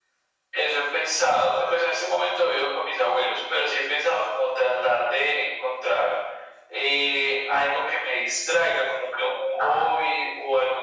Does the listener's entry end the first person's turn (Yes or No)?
No